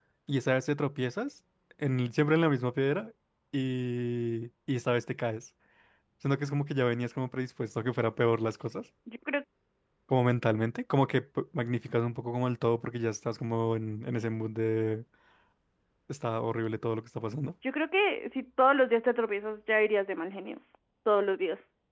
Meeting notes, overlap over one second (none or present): none